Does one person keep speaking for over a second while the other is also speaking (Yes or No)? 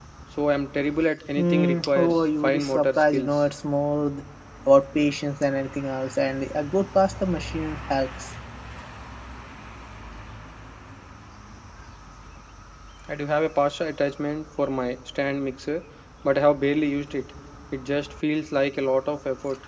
Yes